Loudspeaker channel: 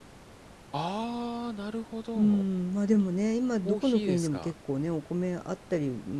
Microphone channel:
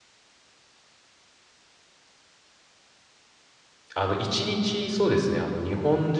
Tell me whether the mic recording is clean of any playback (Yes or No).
Yes